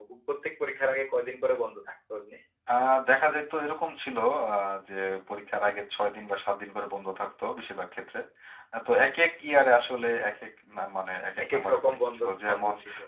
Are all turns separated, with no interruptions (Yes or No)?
No